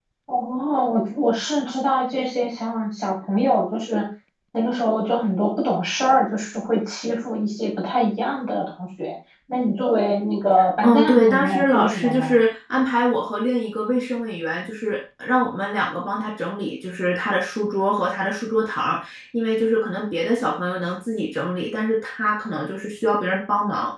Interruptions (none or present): present